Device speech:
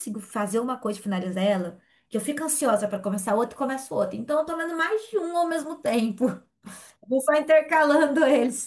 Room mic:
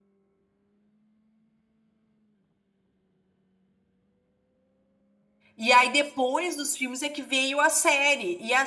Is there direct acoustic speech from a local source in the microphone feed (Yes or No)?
Yes